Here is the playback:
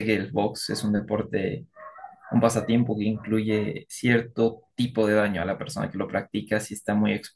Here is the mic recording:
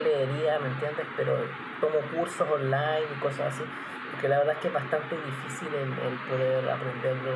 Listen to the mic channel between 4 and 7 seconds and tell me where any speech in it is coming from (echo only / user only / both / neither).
user only